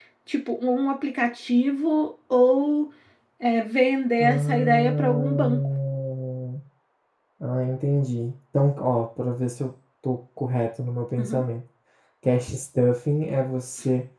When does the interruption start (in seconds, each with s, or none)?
4.2 s